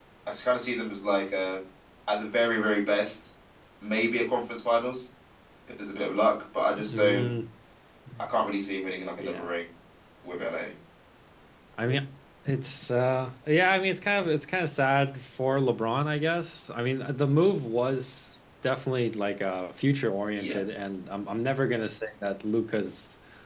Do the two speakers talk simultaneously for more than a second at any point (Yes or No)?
No